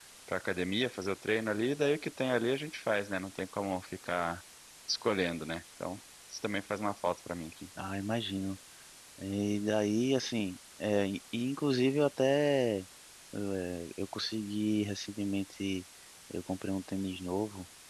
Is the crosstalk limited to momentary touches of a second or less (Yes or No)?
Yes